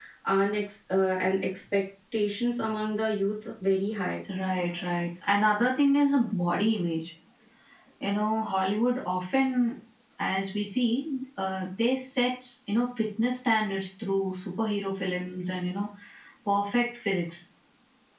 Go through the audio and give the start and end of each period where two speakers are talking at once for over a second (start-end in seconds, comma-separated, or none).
none